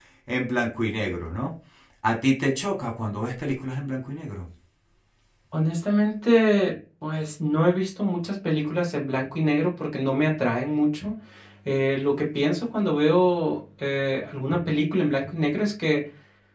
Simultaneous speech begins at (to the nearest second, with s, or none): none